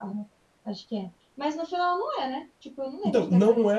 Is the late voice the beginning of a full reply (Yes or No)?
Yes